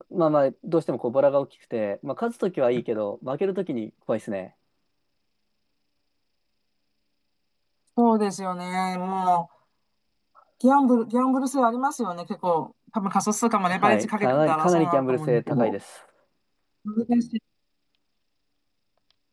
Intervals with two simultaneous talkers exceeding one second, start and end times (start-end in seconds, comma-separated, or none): 13.7-15.7